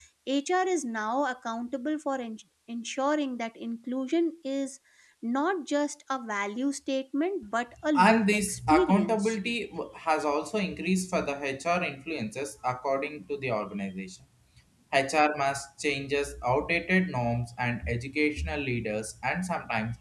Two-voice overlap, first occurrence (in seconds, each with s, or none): 8.0 s